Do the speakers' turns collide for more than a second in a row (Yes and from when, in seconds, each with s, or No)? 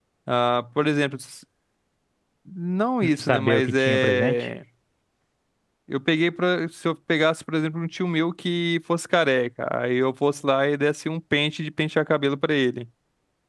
Yes, from 3.0 s